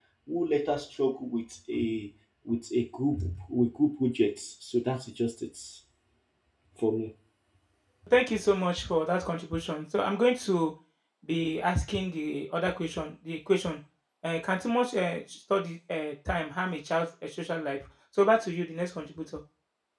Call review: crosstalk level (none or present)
none